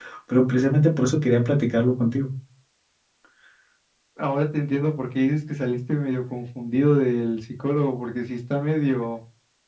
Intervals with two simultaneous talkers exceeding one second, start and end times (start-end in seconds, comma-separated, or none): none